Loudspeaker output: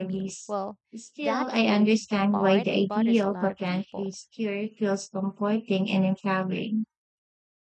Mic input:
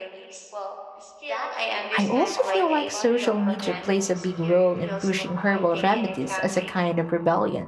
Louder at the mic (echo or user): user